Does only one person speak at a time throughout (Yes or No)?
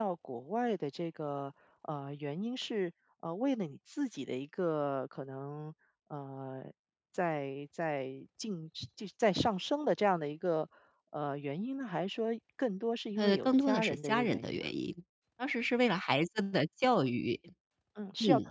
No